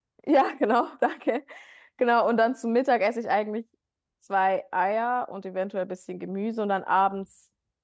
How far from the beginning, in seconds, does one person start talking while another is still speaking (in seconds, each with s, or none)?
none